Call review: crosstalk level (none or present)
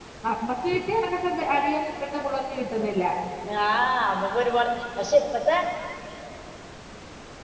none